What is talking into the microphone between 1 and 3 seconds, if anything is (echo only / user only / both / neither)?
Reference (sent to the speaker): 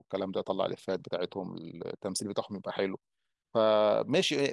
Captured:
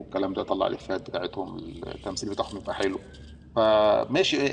echo only